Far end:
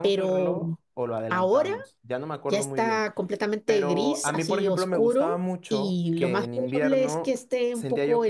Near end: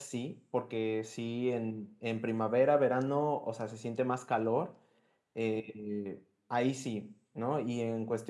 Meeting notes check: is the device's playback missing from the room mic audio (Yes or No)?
Yes